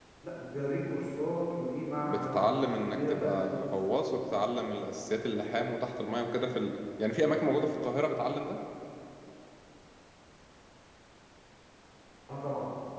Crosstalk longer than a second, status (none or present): present